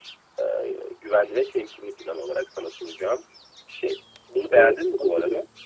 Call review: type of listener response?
taking over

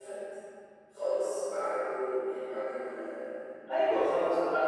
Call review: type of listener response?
taking over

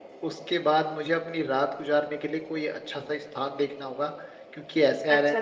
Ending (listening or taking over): taking over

